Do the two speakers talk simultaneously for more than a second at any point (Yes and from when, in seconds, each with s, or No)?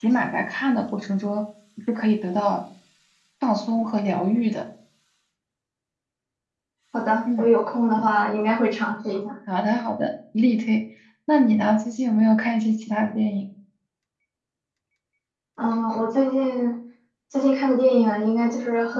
No